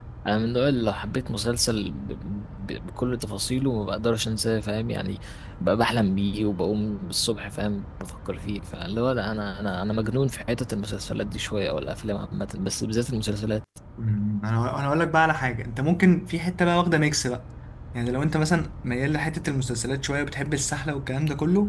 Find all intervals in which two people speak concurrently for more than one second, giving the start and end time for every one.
none

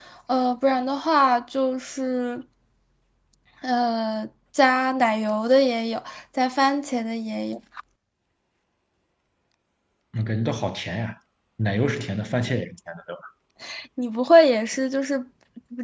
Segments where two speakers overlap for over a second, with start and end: none

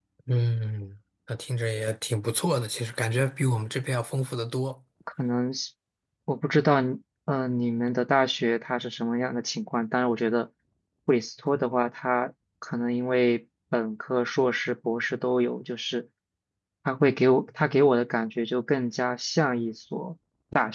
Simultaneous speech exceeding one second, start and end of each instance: none

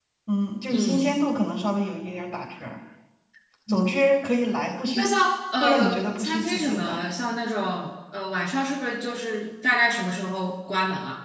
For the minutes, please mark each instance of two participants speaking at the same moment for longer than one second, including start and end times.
5.6-7.0

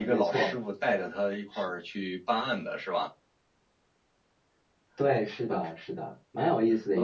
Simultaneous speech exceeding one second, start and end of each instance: none

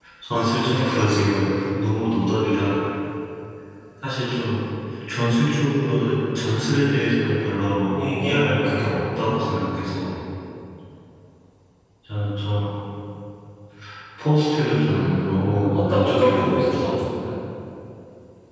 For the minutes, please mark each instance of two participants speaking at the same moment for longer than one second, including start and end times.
7.9-9.5, 14.8-17.0

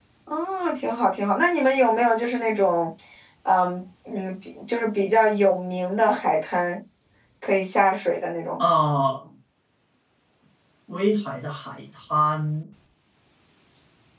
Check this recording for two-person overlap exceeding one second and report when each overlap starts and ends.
none

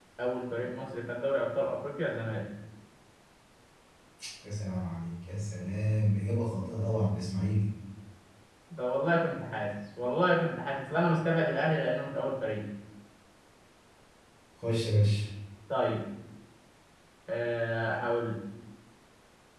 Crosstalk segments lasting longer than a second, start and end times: none

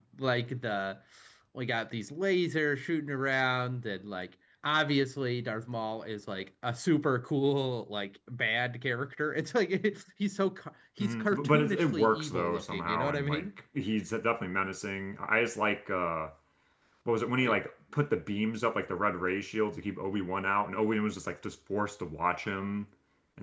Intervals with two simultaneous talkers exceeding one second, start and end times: 11.0-13.5

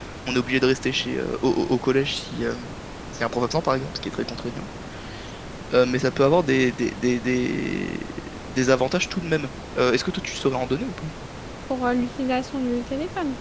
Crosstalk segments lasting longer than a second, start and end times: none

